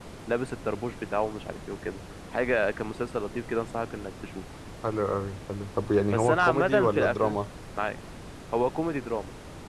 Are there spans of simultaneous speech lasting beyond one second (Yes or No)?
Yes